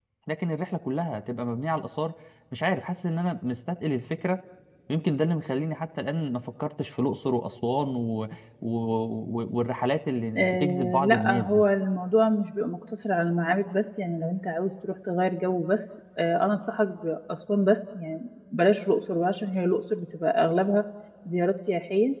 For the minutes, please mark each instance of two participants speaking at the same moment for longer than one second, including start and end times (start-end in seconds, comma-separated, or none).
10.3-11.6